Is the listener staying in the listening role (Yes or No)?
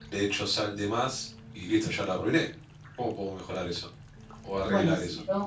No